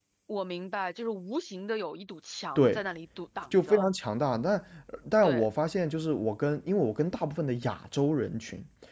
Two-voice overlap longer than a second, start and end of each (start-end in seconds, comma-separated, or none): none